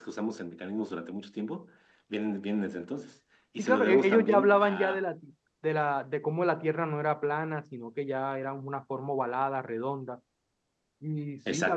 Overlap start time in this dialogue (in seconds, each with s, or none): 3.6 s